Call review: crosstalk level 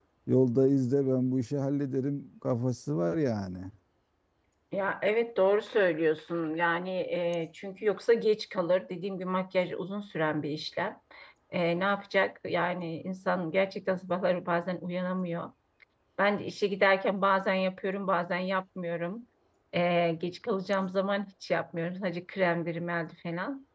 none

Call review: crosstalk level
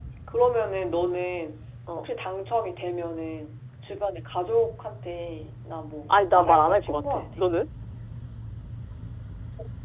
present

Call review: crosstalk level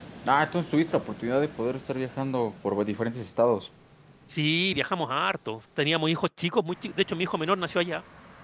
none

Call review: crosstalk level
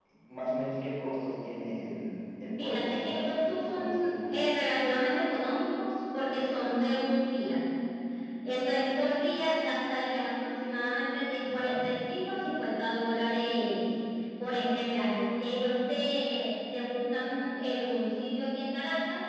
present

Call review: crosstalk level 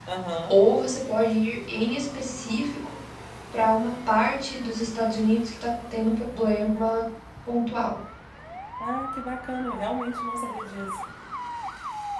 none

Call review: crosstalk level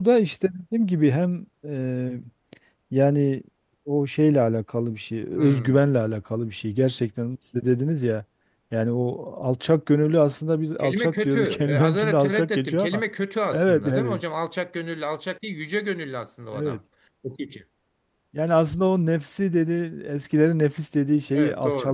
present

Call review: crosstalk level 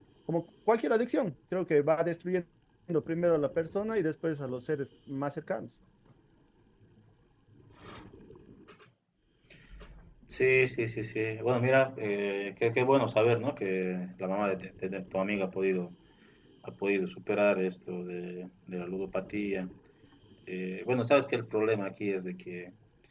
none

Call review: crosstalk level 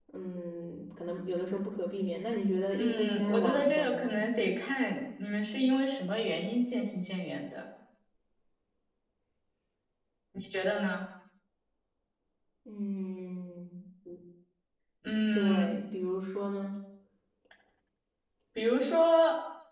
present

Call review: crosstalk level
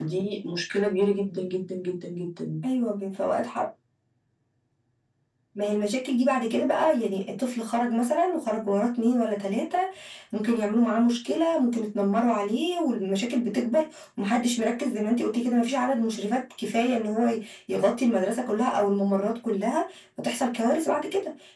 none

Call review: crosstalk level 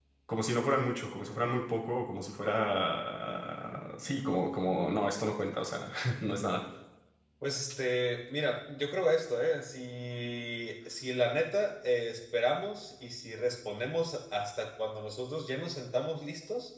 none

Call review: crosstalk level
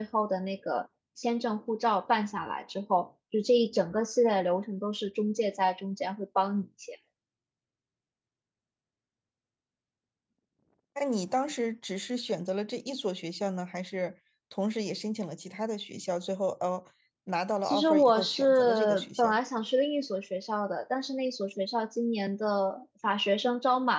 present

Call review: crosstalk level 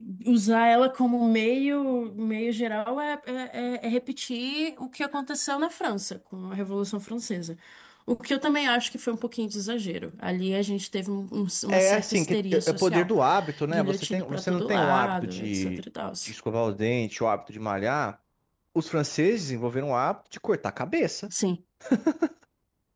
present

